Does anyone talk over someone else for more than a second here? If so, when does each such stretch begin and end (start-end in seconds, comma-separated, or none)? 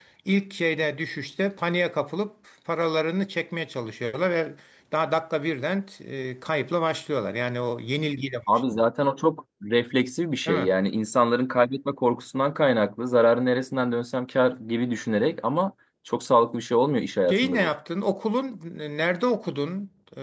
none